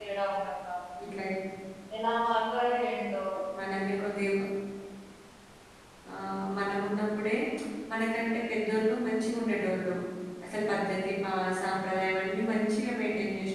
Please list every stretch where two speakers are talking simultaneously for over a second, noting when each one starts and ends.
none

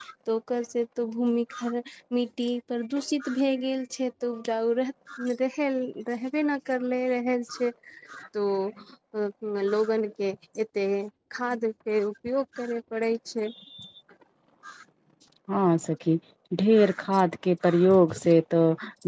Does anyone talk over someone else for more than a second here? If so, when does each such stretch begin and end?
none

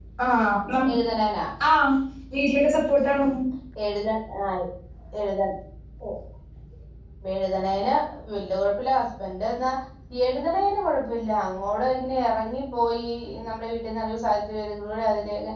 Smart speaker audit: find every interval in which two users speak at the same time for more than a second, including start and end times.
none

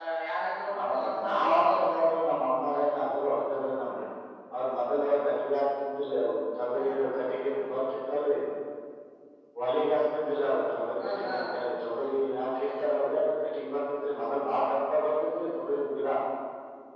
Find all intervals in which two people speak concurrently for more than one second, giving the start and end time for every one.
0.7-2.0

